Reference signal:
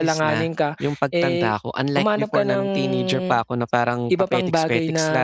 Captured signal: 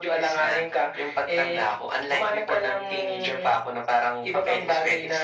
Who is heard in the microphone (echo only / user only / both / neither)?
echo only